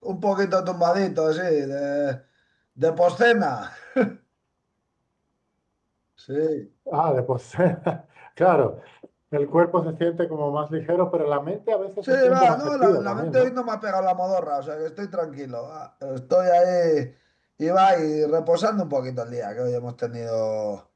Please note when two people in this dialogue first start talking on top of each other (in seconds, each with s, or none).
12.0 s